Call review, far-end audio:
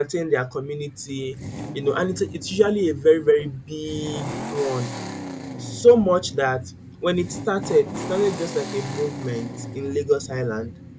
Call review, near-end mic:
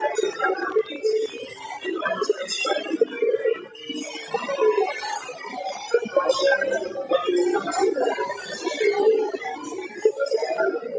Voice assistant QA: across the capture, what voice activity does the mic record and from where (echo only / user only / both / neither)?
both